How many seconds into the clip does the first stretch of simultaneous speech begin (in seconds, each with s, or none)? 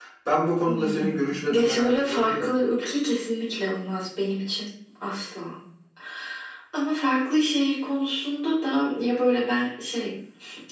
0.6 s